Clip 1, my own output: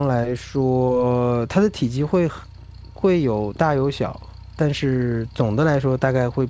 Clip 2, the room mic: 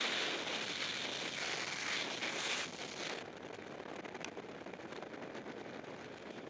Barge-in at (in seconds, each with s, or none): none